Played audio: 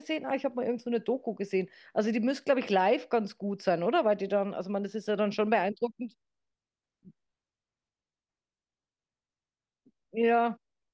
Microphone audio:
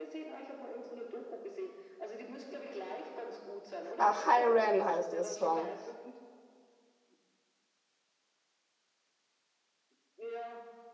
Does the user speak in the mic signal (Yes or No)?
Yes